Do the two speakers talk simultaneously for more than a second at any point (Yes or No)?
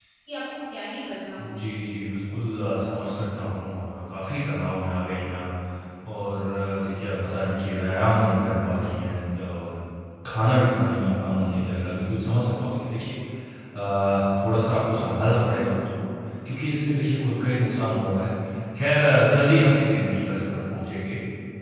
No